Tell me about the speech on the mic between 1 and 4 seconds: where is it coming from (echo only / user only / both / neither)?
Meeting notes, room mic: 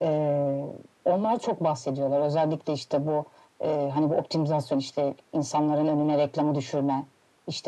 echo only